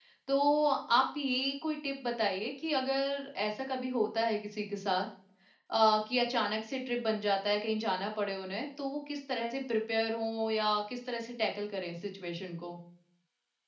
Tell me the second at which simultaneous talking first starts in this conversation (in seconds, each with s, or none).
none